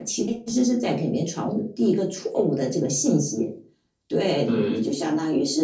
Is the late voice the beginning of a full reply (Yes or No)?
No